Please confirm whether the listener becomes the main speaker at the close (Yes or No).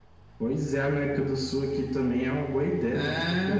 Yes